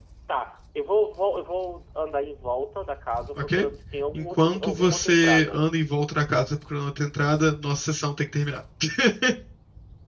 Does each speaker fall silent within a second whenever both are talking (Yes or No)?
No